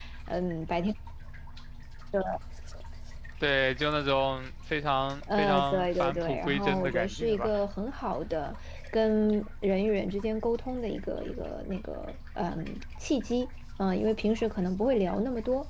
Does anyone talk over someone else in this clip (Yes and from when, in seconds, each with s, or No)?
Yes, from 5.3 s